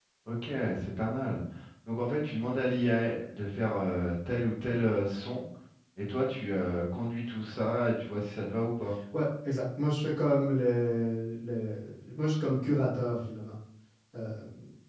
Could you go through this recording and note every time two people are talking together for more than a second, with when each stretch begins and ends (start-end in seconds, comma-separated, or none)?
none